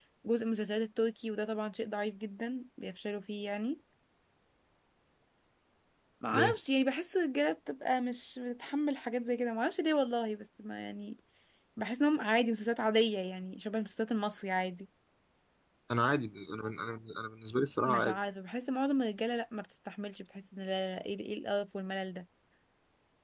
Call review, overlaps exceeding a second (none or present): none